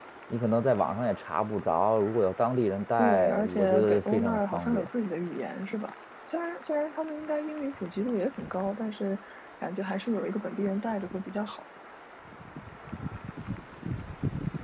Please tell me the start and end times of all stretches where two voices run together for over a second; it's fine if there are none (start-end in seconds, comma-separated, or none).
3.0-4.9